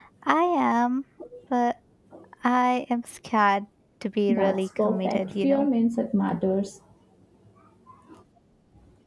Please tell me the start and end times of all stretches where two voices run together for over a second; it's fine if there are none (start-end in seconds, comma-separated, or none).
4.3-5.7